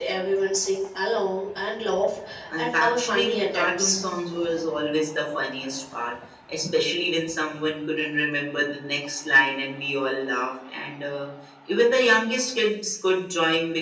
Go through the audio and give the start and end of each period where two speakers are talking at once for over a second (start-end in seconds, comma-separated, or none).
2.6-4.0